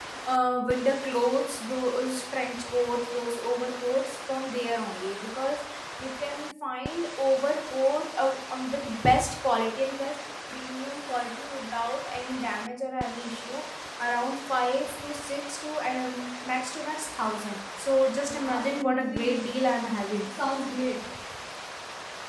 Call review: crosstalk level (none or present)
present